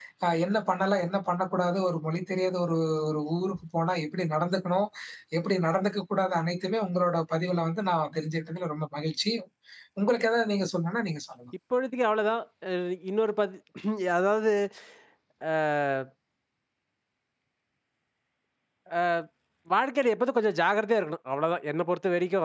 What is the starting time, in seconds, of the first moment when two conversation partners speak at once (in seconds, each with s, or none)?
none